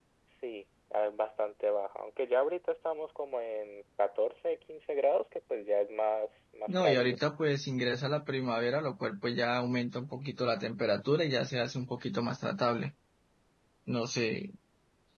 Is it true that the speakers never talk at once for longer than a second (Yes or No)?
Yes